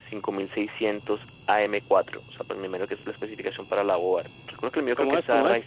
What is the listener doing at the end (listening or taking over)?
taking over